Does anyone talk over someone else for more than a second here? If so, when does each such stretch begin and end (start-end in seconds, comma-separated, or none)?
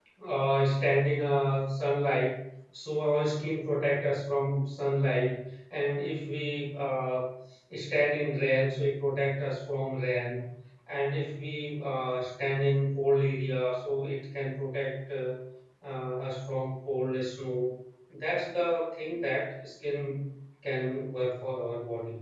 none